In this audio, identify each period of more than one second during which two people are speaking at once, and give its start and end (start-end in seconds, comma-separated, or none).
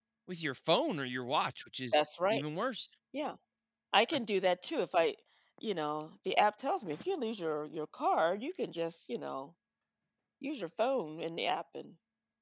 none